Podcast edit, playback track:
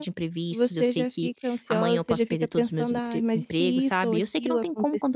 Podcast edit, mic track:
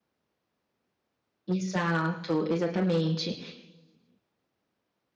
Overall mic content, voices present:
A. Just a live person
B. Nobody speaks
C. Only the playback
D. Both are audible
A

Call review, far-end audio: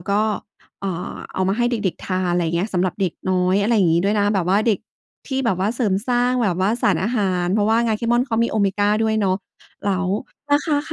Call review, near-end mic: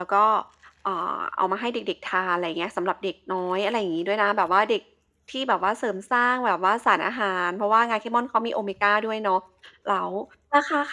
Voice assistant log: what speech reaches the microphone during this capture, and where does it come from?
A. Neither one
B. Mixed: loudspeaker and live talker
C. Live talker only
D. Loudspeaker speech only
D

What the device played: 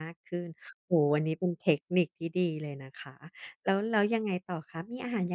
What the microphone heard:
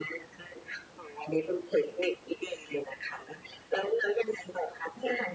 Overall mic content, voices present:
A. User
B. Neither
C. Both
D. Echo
D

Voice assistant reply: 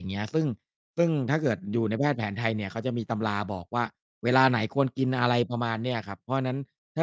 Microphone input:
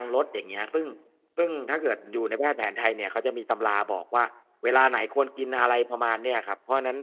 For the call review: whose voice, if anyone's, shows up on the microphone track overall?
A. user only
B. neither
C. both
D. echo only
D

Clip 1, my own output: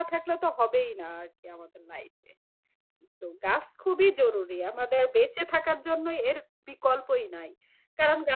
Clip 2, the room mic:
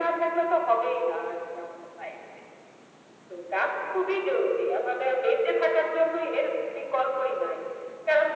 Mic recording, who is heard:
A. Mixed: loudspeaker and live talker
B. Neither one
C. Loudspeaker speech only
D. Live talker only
C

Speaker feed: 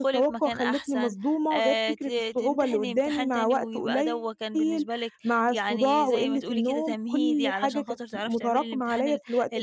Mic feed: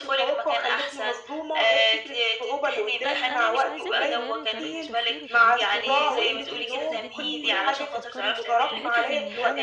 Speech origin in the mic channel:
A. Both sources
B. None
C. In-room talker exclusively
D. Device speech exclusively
A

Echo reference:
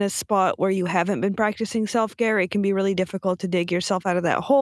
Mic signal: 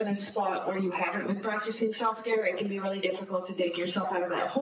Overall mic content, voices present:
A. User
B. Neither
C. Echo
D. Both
C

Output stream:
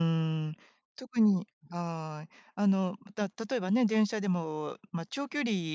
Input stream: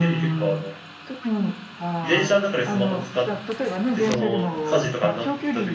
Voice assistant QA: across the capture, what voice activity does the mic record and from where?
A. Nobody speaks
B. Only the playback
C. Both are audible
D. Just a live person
C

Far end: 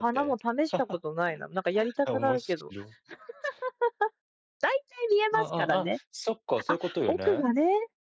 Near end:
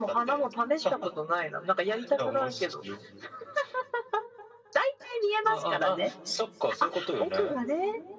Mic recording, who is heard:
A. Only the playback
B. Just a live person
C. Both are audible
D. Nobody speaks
A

